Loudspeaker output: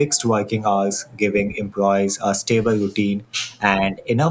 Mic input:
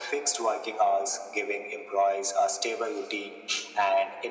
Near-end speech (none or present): none